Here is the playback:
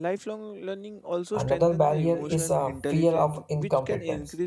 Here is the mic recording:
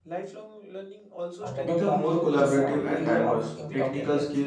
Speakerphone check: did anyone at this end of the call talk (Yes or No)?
Yes